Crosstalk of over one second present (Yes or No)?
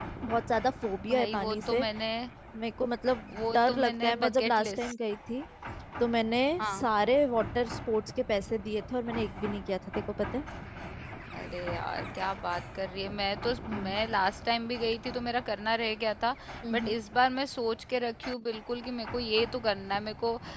Yes